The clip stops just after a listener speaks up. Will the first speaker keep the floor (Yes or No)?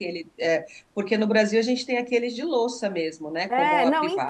No